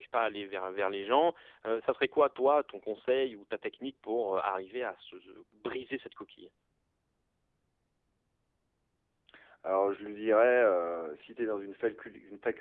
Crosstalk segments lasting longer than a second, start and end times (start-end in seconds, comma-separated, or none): none